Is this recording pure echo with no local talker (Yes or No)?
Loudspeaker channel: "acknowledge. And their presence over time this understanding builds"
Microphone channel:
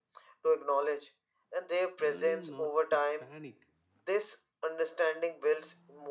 No